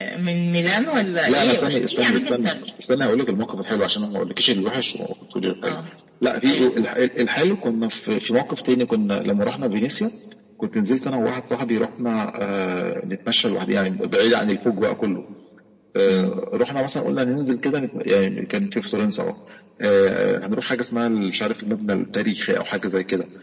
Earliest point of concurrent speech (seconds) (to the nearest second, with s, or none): 1 s